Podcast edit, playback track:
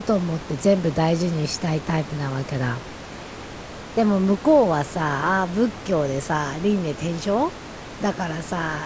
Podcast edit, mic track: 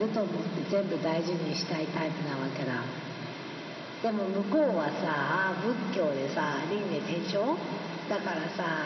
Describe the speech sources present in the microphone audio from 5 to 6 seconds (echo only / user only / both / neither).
echo only